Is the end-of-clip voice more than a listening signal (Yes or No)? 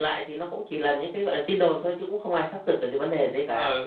Yes